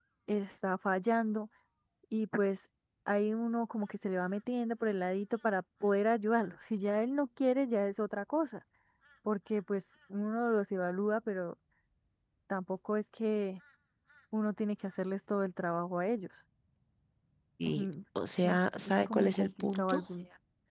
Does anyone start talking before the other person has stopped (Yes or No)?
Yes